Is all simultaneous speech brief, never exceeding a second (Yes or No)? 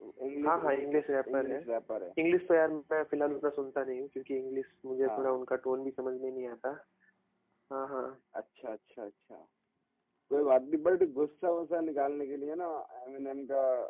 Yes